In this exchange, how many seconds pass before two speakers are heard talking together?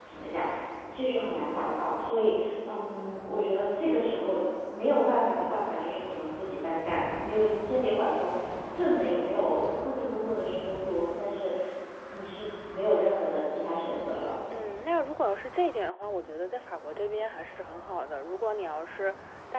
none

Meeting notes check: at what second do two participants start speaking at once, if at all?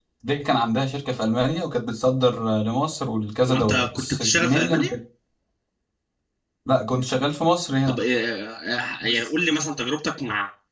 3.5 s

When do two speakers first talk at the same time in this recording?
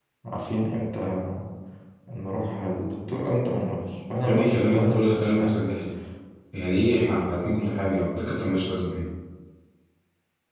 4.2 s

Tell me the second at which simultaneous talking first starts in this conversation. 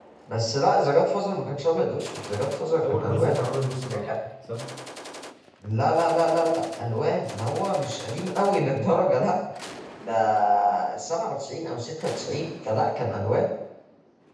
2.8 s

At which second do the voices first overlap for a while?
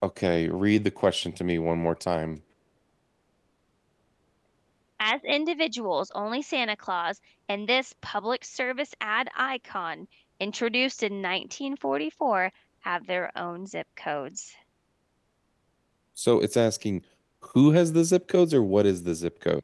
none

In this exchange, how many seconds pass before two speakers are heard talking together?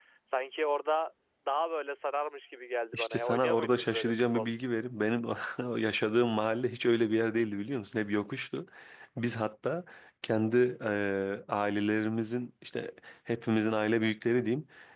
2.9 s

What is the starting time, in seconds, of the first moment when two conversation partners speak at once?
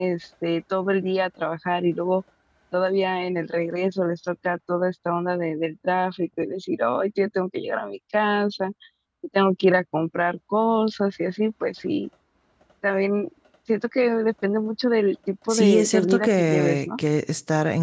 15.5 s

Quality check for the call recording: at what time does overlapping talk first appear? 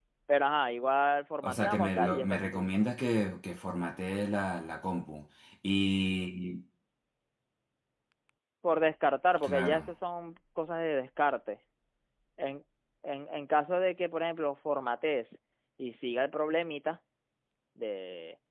1.4 s

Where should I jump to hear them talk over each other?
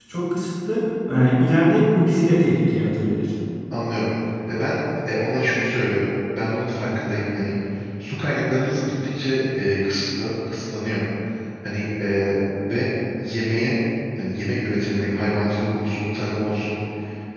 none

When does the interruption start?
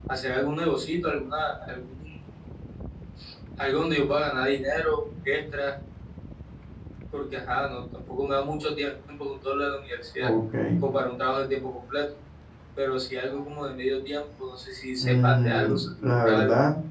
15.0 s

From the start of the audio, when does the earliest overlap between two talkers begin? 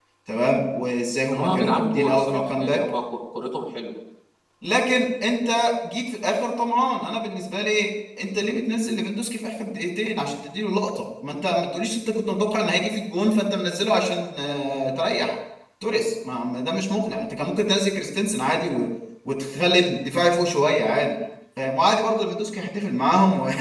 1.3 s

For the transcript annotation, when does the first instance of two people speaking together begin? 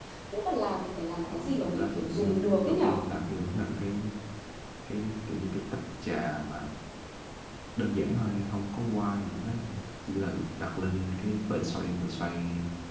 1.3 s

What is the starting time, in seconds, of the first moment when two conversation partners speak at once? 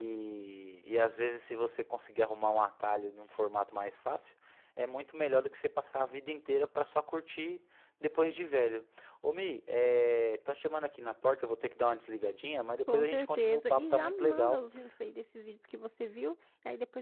12.9 s

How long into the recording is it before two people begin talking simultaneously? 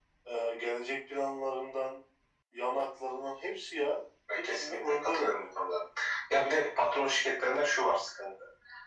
4.3 s

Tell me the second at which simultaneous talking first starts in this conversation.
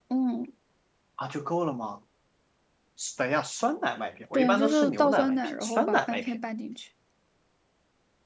4.3 s

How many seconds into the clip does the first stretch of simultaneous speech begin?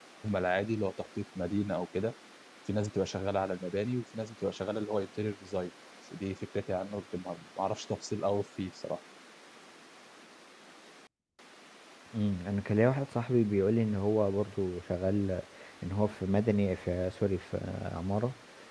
none

